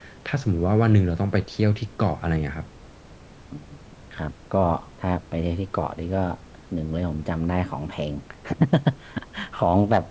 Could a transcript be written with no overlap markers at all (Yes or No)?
Yes